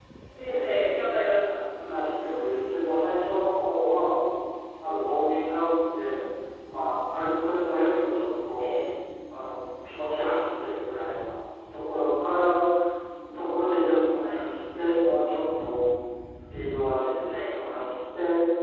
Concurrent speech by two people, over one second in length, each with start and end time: none

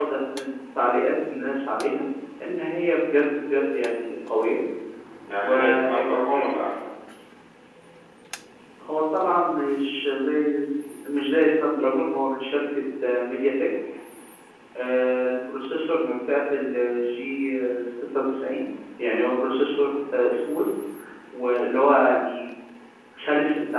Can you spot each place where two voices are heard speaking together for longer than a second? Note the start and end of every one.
5.4-6.7

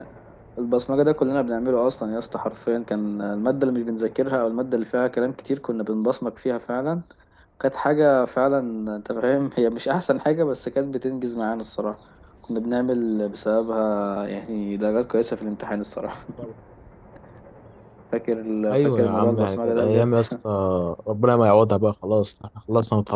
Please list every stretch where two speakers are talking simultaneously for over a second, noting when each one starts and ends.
18.7-20.1

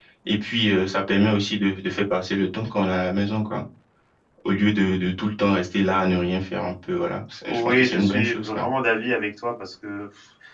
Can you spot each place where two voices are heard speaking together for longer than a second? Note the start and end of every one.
7.4-8.7

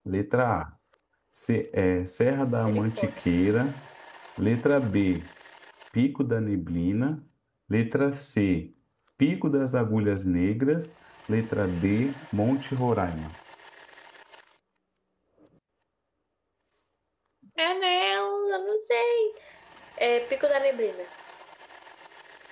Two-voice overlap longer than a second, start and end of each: none

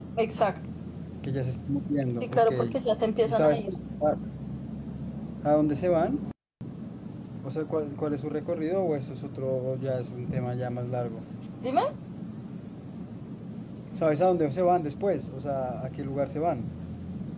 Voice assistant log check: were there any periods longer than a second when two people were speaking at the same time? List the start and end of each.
none

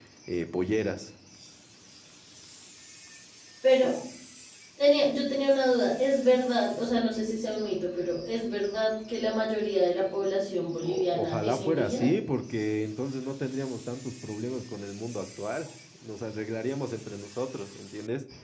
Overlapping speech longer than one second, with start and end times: 10.8-12.1

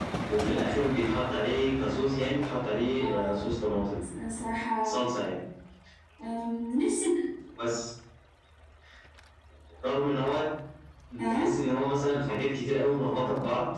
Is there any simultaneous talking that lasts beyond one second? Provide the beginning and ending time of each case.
none

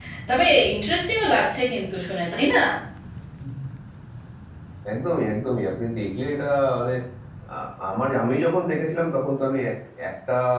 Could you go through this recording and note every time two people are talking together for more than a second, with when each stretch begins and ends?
none

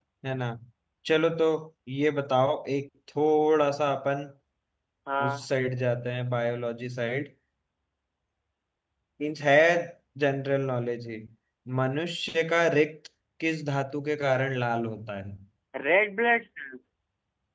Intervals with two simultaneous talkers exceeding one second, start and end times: none

